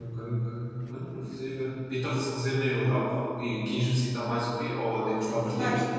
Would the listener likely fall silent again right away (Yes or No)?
No